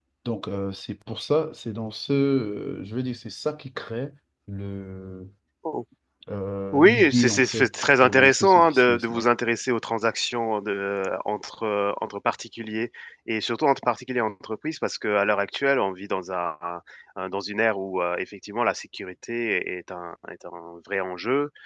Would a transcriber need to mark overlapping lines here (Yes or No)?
Yes